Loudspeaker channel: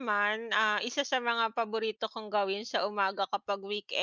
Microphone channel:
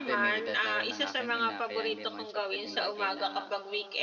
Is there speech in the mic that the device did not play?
Yes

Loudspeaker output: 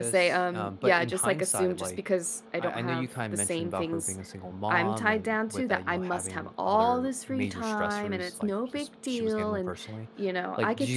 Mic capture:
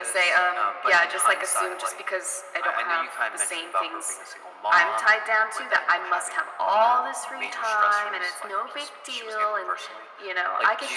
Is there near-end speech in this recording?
No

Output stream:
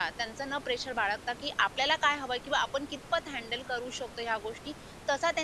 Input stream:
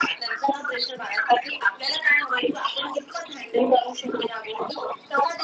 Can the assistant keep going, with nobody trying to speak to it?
Yes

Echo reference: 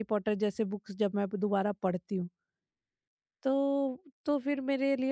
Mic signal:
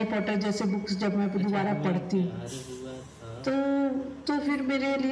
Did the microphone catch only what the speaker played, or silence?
No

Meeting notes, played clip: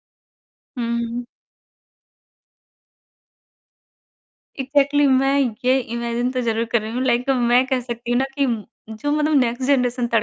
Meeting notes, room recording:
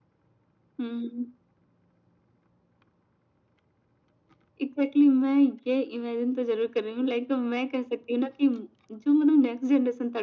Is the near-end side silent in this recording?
Yes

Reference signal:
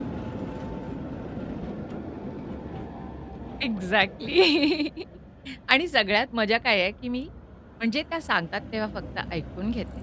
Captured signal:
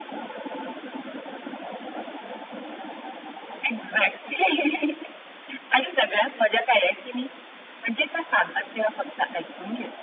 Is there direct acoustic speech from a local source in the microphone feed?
No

